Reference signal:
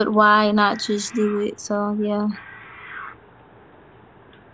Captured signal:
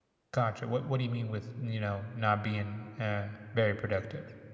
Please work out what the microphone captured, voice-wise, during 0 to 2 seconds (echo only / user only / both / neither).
user only